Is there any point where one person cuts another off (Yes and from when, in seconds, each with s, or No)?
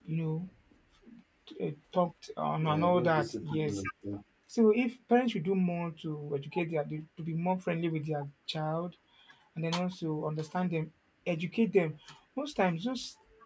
Yes, from 2.6 s